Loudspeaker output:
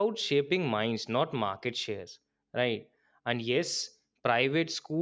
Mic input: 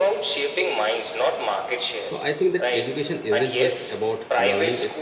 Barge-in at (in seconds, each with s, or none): 2.0 s